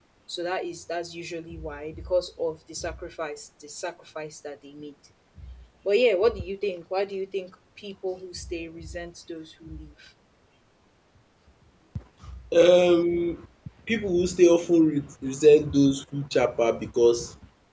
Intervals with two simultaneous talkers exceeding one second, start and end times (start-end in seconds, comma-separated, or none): none